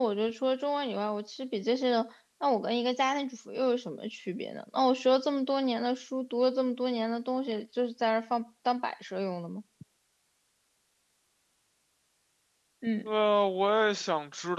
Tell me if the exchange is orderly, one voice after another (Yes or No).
Yes